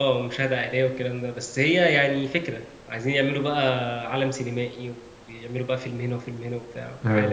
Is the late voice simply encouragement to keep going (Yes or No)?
No